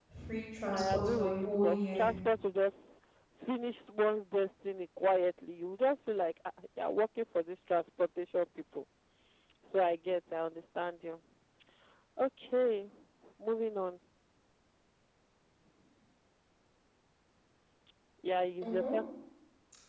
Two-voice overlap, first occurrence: 0.7 s

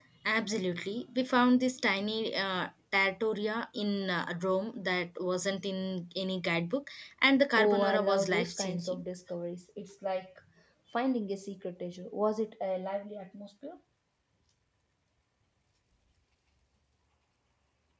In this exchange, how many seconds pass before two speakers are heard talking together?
7.5 s

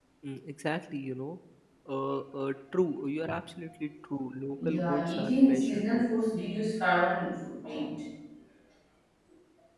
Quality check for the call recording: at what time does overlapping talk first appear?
4.6 s

